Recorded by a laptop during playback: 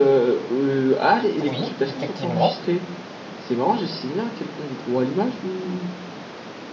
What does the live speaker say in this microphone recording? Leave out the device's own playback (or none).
Oui, effectivement.